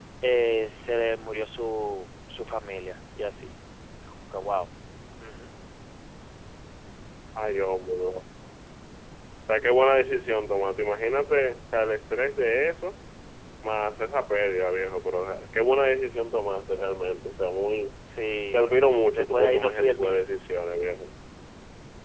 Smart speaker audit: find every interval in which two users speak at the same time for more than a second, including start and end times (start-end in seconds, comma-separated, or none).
19.1-20.4